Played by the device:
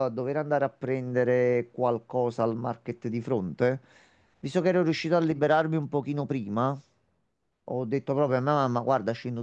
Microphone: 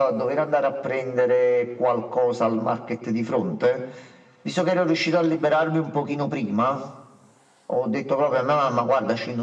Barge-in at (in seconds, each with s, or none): none